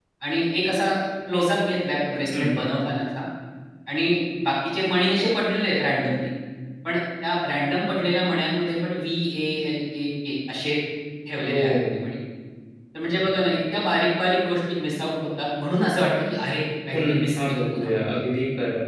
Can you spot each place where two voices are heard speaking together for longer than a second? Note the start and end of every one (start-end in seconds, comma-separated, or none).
16.9-18.2